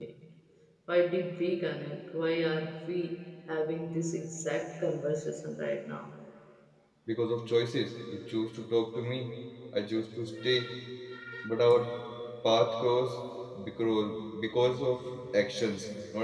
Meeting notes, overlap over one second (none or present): none